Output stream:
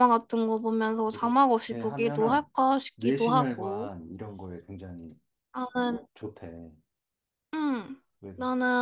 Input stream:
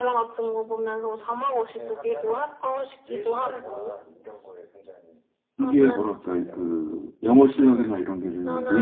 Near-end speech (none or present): present